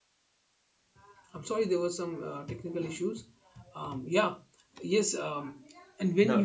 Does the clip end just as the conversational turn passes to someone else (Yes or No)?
No